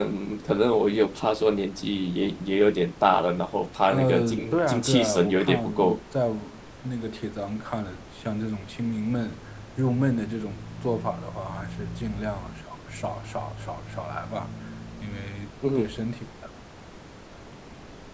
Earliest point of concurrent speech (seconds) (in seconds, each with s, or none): 3.9 s